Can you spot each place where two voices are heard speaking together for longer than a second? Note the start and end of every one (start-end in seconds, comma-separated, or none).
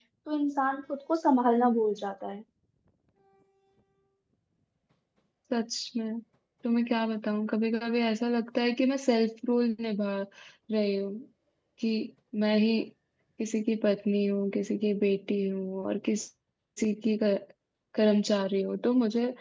none